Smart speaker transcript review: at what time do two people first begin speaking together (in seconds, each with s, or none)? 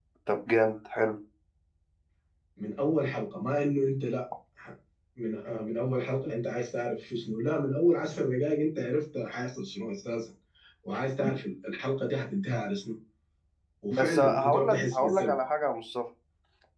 13.9 s